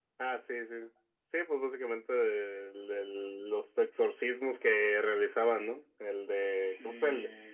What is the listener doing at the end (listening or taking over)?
listening